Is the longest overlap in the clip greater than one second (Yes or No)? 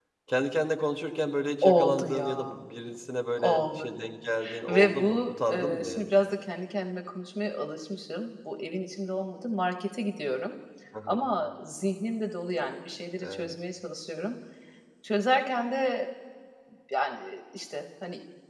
Yes